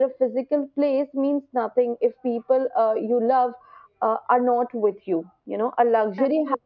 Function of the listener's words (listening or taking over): listening